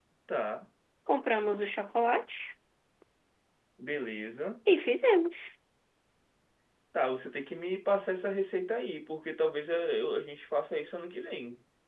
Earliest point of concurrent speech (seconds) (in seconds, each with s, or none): none